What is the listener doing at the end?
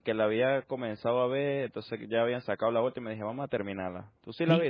taking over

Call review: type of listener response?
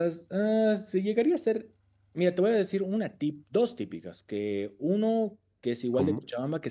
listening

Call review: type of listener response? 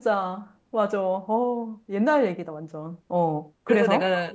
taking over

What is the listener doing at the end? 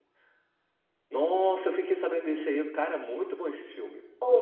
taking over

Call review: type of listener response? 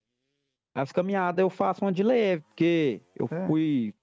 listening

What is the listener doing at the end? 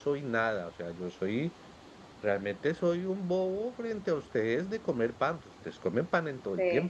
taking over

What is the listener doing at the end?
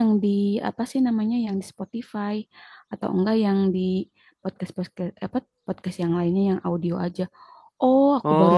taking over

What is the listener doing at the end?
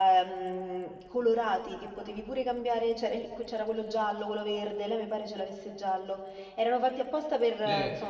taking over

